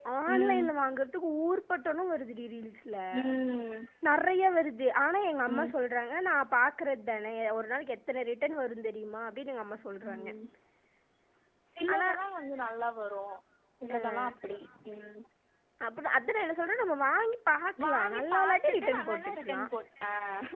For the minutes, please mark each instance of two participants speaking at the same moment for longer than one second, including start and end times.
17.9-19.6

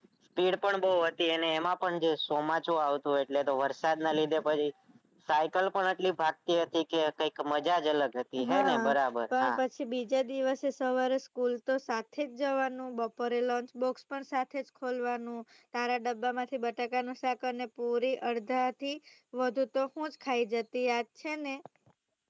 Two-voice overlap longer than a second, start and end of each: none

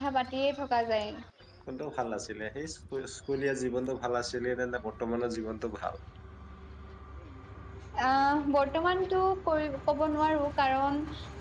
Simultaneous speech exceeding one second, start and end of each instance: none

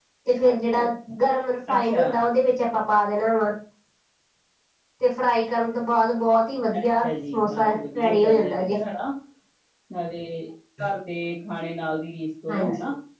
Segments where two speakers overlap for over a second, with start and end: 6.8-8.8

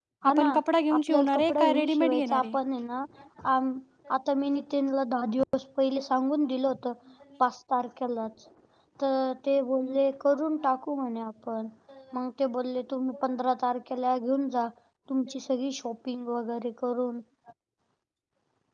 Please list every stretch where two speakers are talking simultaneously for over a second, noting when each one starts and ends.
0.9-2.6

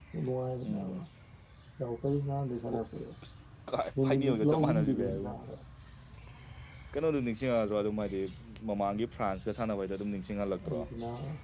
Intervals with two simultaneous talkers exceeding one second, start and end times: 4.0-5.3

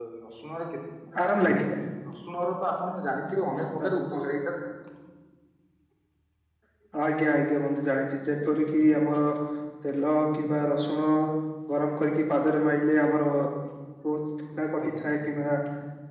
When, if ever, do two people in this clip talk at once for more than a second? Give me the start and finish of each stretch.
none

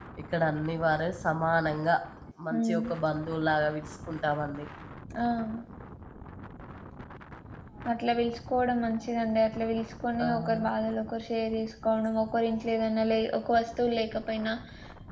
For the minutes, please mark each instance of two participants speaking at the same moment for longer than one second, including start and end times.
none

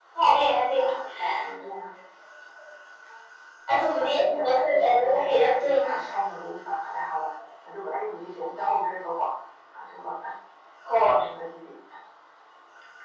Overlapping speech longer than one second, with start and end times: 4.0-5.9

